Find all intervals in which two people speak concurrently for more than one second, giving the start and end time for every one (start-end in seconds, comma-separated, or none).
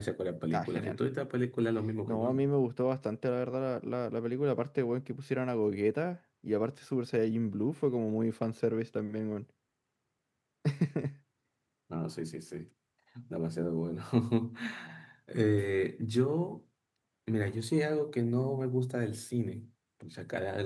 none